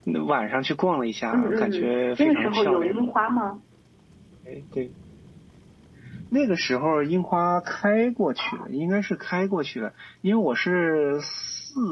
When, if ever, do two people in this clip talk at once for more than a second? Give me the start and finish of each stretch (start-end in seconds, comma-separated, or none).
1.3-2.9